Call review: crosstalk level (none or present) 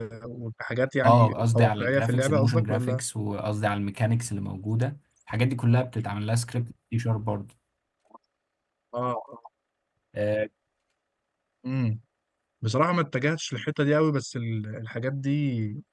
present